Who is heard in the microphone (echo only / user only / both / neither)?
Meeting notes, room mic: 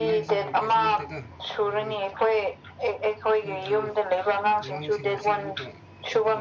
both